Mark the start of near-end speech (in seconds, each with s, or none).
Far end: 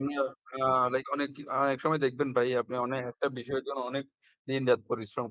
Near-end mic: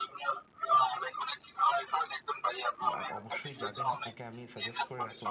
2.6 s